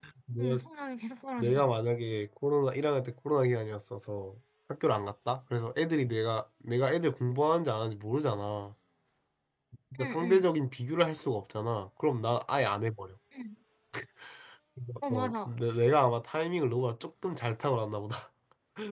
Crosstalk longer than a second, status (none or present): none